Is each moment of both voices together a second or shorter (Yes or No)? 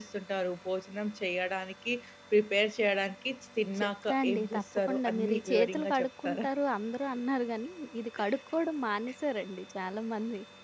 No